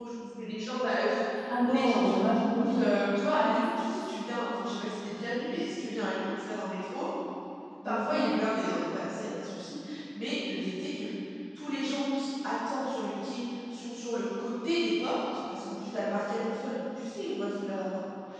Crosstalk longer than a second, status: present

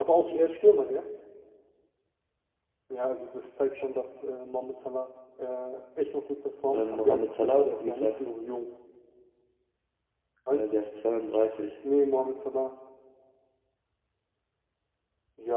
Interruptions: present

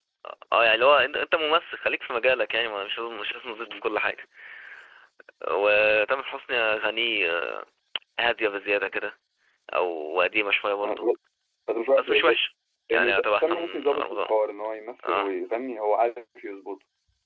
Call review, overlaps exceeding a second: present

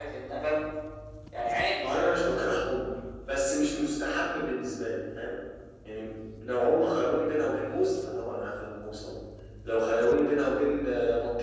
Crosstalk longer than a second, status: none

